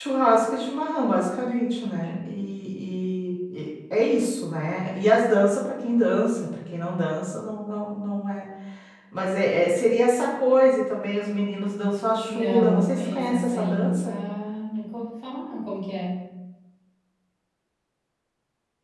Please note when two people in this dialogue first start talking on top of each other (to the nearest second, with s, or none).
12 s